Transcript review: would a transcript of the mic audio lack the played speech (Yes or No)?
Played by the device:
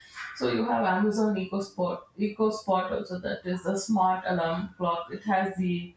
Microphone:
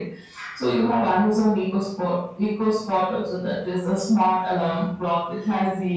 No